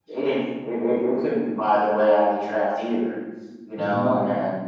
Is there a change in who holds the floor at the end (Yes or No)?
No